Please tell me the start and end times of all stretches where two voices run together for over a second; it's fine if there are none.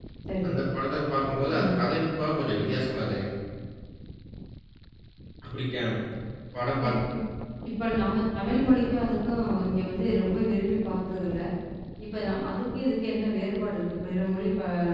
none

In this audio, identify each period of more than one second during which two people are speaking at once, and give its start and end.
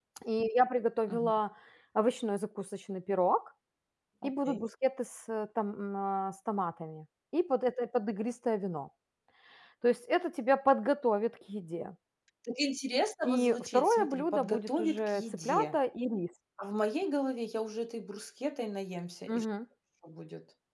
13.2-15.8

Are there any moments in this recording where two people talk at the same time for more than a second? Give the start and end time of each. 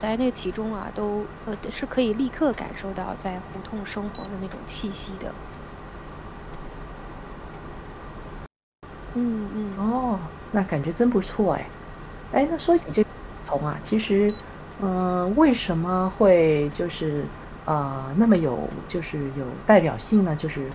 none

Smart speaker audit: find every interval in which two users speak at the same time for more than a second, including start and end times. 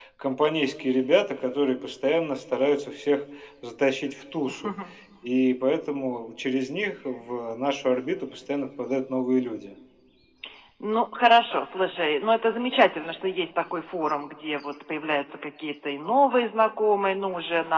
none

